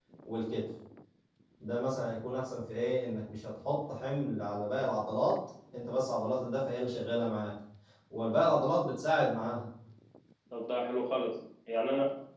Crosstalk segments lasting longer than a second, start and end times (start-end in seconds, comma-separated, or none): none